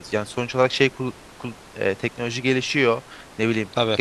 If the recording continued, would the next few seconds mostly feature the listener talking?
No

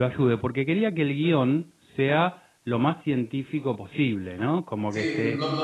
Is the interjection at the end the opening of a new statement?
Yes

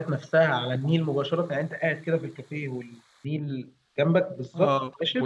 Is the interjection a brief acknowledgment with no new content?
No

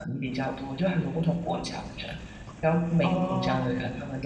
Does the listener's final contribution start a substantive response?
No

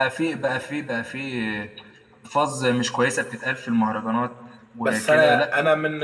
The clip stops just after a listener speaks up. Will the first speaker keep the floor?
No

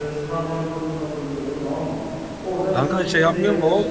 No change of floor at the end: No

